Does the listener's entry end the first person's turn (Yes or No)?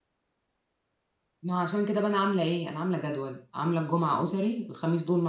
No